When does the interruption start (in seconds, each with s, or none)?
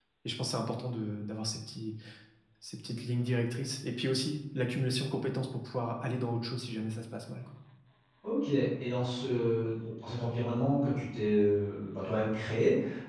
none